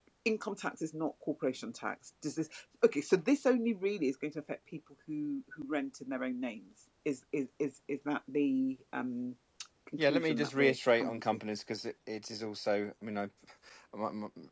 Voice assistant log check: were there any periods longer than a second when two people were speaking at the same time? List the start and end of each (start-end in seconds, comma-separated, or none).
10.0-11.2